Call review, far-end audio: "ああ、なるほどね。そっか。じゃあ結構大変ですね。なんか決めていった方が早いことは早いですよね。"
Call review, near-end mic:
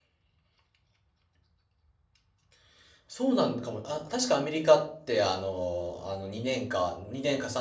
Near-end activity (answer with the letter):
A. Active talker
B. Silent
A